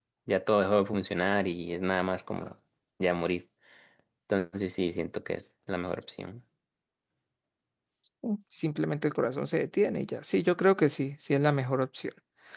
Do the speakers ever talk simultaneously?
No

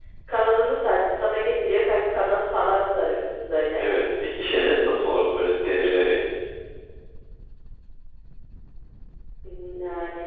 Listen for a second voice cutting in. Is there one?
No

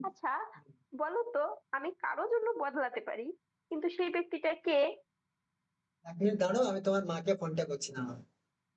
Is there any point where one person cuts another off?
No

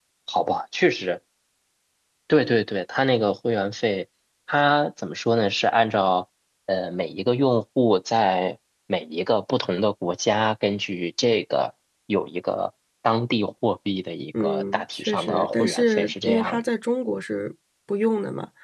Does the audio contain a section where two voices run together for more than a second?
Yes, from 14.3 s

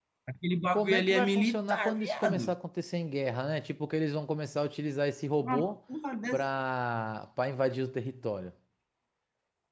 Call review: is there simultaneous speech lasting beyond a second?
Yes, from 0.7 s

